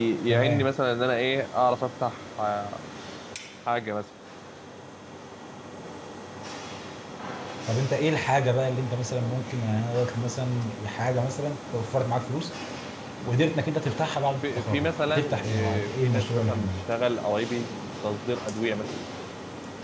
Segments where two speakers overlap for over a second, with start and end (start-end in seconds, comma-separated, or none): 14.4-16.7